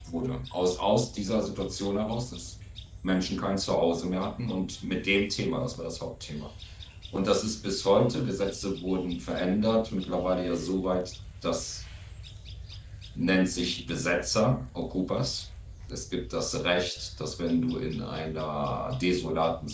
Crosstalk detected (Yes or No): No